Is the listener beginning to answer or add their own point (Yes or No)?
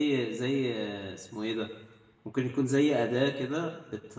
No